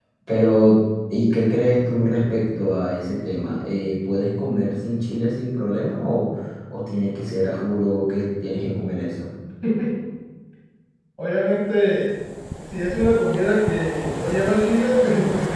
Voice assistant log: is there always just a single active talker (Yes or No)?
Yes